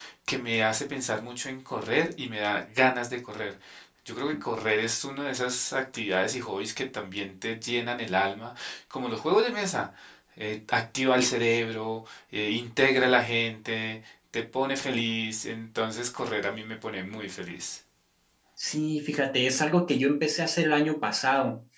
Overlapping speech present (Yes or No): No